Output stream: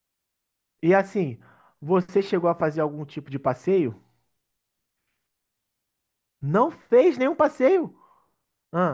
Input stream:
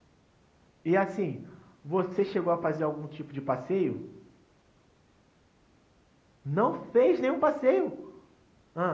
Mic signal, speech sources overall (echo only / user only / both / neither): echo only